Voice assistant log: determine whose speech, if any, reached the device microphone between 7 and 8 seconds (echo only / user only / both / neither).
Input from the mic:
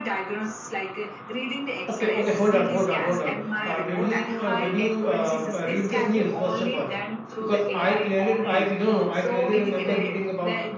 both